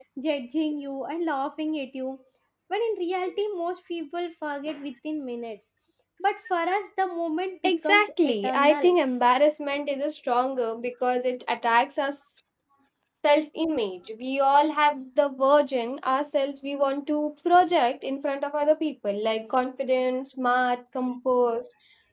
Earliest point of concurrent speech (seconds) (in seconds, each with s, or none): 7.6 s